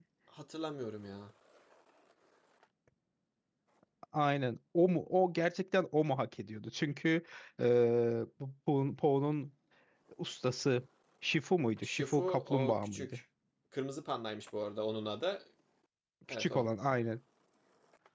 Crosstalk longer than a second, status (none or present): present